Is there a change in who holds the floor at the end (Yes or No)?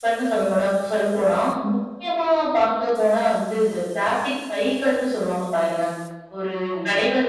No